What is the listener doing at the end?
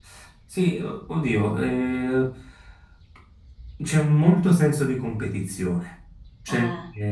listening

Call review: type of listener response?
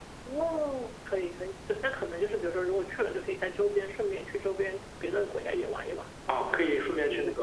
taking over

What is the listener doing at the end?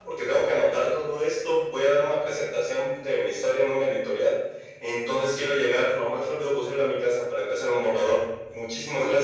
taking over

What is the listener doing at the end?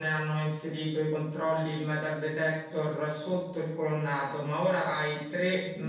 listening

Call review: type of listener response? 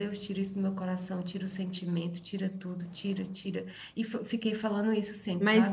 taking over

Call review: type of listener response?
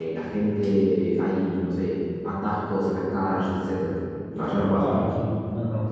taking over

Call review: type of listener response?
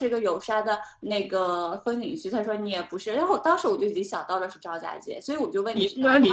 taking over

